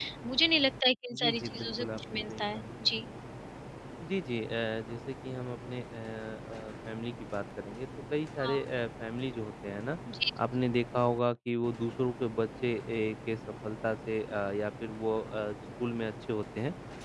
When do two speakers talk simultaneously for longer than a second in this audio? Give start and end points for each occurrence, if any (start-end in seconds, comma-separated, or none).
1.2-2.6